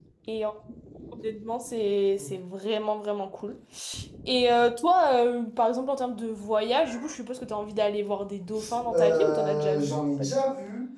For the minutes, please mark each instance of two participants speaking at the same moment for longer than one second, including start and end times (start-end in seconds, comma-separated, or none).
8.9-10.3